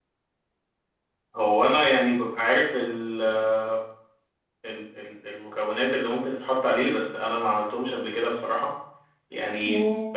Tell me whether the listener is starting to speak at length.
No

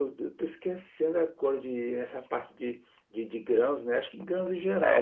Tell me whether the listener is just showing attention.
No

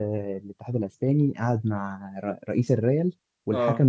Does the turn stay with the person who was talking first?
Yes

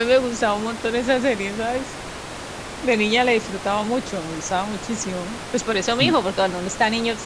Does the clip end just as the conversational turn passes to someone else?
No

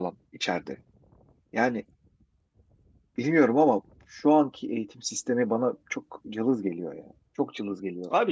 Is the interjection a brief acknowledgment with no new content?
No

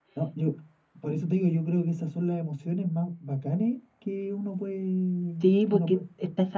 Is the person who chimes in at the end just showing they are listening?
No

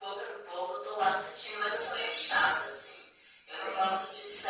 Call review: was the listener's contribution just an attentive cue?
Yes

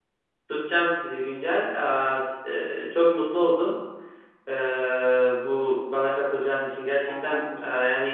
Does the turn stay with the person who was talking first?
Yes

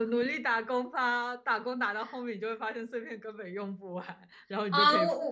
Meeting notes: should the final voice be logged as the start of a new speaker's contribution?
Yes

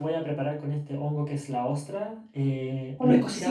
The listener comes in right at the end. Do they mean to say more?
No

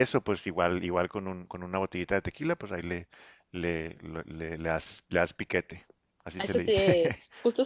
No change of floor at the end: No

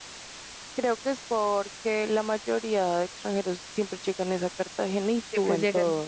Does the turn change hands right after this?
Yes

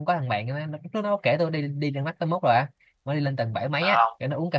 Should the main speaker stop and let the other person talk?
No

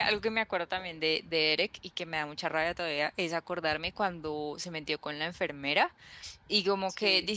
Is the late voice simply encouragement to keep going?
Yes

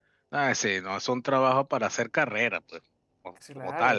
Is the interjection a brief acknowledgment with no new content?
No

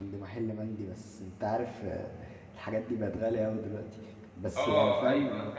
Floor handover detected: Yes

